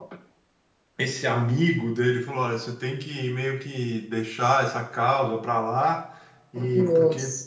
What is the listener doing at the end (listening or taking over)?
listening